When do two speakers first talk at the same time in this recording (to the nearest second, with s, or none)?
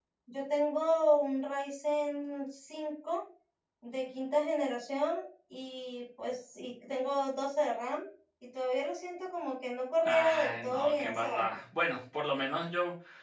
10 s